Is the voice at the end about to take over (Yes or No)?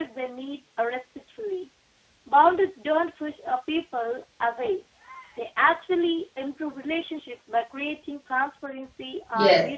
Yes